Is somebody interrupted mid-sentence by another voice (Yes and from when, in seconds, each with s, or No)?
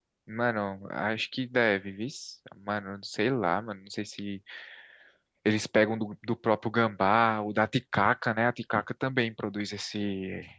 No